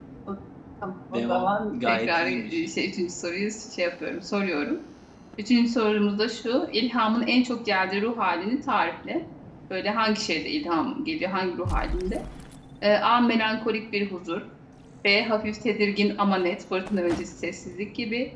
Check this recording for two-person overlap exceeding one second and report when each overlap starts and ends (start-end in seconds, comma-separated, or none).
1.1-2.7